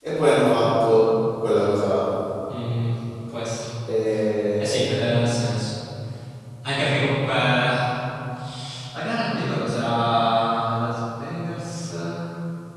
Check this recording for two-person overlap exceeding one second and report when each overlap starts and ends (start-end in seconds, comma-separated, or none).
none